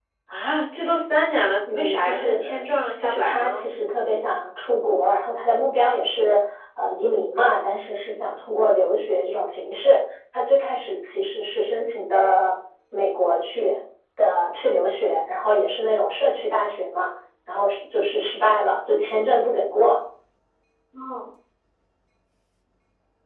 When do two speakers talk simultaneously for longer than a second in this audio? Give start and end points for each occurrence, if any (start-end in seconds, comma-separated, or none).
1.7-3.6